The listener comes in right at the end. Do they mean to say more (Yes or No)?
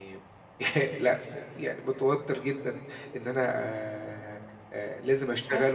No